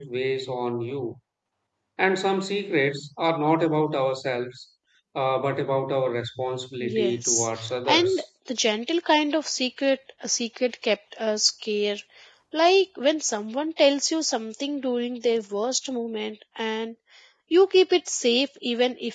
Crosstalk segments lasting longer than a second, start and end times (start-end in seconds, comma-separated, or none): 6.8-8.2